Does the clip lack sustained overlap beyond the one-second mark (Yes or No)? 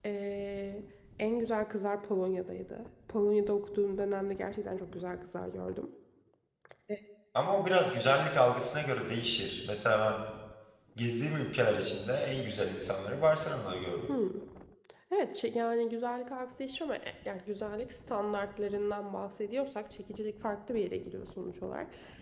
Yes